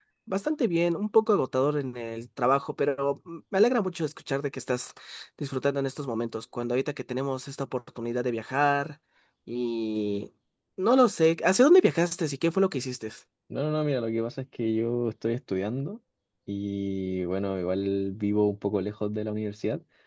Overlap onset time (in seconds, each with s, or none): none